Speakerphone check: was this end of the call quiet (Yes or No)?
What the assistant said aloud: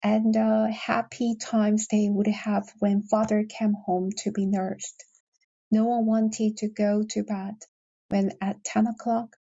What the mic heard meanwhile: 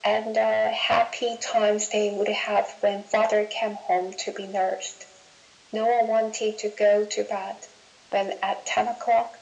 Yes